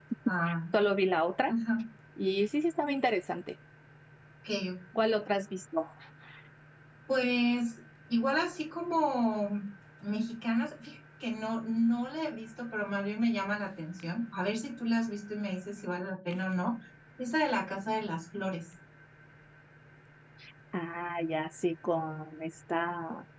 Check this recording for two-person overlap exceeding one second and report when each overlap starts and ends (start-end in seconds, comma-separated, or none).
none